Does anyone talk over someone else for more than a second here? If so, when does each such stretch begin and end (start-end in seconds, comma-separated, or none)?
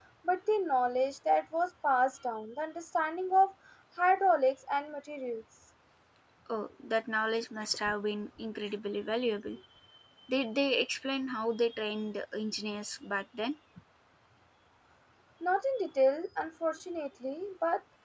none